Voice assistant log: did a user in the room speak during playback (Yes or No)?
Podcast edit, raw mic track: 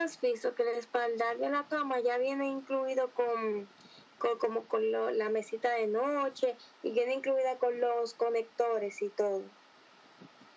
No